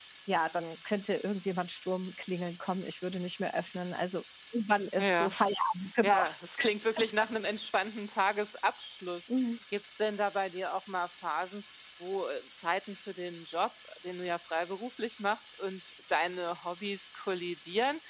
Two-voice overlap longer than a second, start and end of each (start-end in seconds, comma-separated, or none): none